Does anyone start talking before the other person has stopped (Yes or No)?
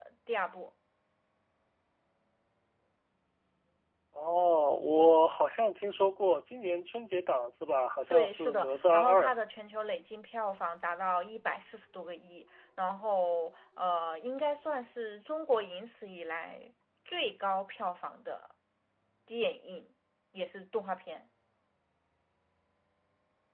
Yes